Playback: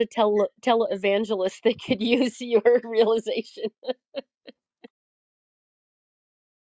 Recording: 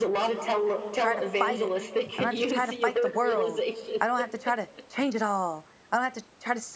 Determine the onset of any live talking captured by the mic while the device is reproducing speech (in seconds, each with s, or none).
0.9 s